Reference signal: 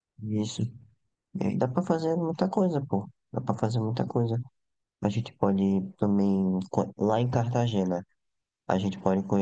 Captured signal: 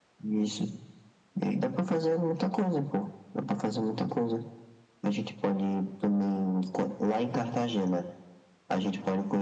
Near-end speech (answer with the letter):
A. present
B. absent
B